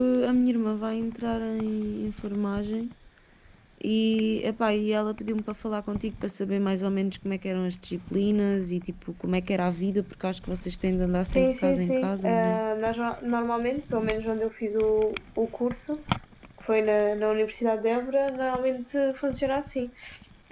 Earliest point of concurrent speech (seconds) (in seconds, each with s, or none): 11.3 s